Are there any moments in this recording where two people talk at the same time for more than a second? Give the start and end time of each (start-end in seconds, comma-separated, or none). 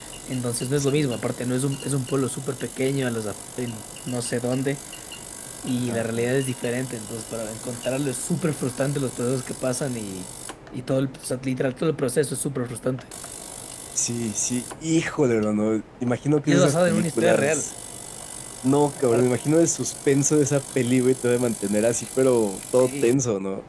16.4-17.7